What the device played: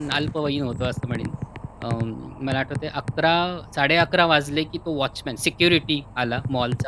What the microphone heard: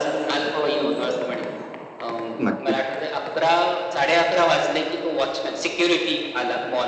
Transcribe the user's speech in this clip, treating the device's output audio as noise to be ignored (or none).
नक्कीच